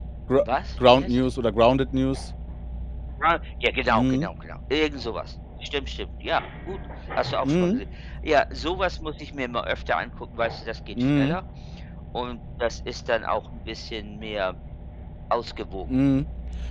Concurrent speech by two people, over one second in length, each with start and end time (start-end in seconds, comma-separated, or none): none